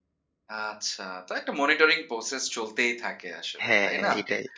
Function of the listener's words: taking over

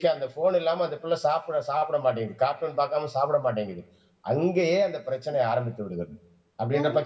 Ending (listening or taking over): taking over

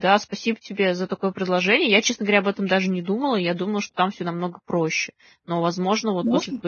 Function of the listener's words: listening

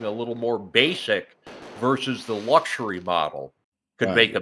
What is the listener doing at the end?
listening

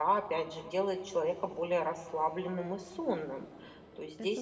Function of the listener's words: listening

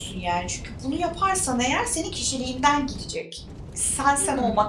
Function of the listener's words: listening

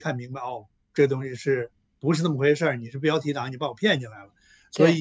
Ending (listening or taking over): taking over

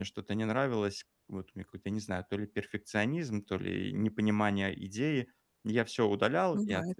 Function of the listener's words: listening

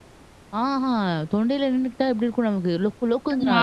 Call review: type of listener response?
listening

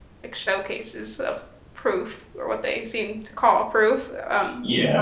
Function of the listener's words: taking over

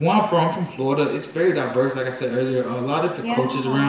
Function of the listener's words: listening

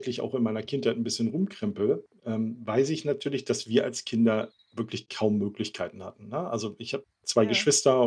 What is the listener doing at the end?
listening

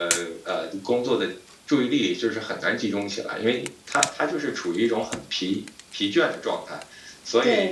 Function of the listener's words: taking over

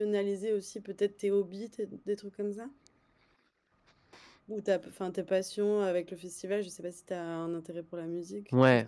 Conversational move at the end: taking over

